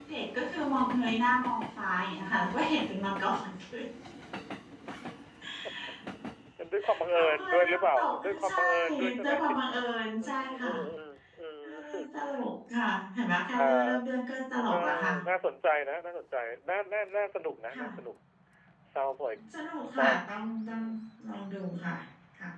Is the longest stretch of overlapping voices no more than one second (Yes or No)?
No